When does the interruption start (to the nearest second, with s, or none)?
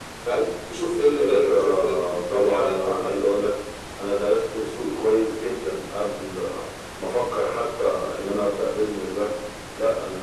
1 s